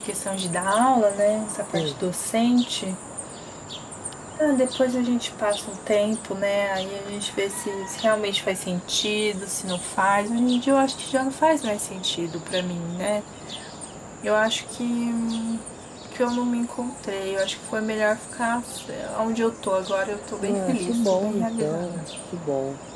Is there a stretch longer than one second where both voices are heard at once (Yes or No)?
Yes